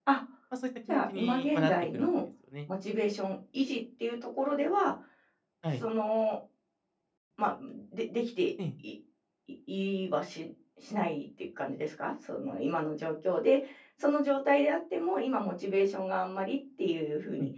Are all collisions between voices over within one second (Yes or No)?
No